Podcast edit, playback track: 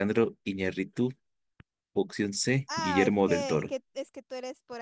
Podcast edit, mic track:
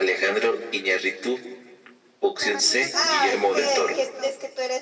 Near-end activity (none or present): present